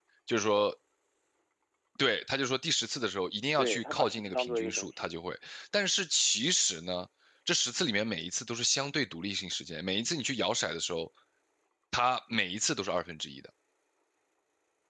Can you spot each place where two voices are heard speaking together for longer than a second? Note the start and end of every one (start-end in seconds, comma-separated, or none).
3.6-4.9